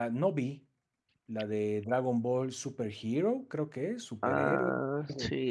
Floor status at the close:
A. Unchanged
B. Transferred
B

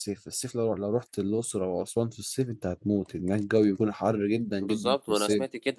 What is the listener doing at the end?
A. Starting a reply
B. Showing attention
A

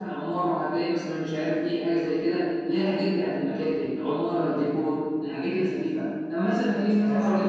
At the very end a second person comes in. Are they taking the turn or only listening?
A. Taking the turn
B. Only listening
B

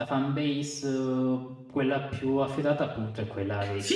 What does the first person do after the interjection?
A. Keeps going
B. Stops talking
B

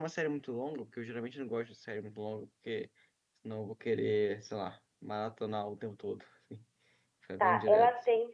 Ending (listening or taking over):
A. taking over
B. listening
A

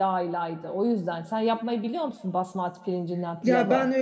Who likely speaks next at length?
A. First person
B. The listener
B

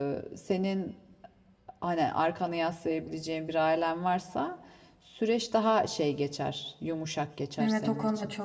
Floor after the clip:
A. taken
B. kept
A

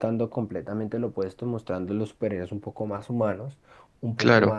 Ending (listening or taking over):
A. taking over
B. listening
B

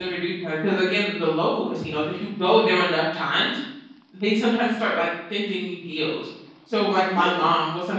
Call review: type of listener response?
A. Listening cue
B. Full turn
A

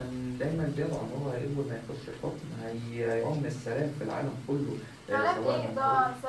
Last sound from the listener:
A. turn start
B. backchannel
A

